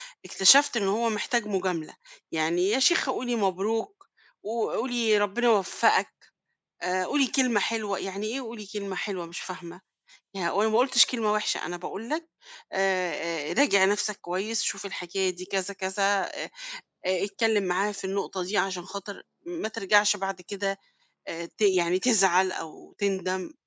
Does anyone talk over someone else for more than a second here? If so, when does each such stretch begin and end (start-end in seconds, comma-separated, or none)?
none